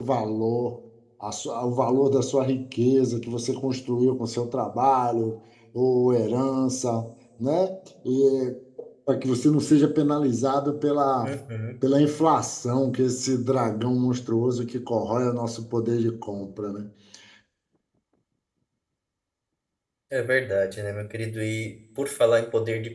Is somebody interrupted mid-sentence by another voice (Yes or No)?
No